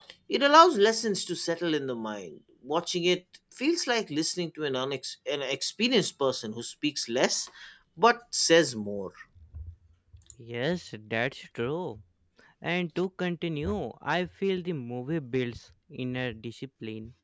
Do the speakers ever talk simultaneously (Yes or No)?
No